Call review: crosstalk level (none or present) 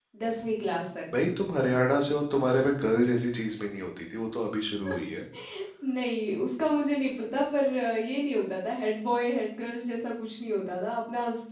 none